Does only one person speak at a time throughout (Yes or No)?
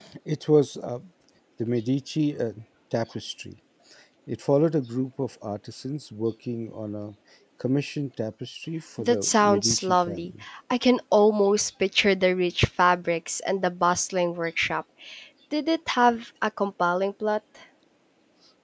No